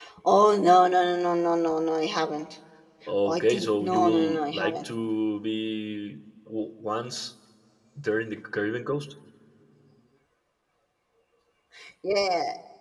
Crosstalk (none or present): present